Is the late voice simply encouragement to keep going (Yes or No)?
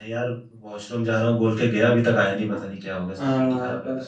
No